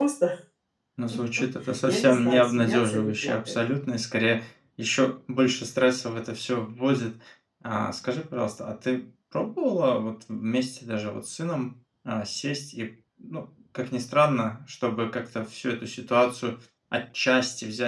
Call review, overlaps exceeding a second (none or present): present